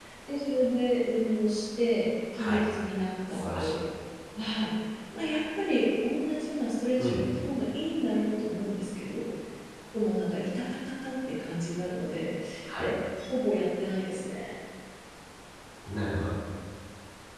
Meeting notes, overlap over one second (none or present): none